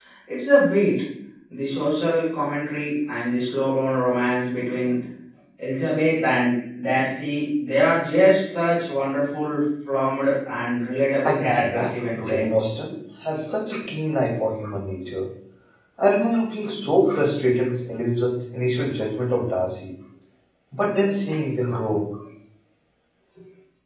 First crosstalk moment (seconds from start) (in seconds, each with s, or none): 11.2 s